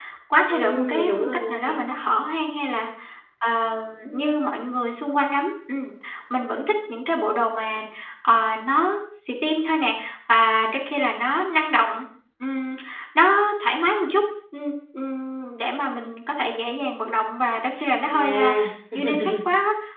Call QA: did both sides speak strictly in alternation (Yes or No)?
No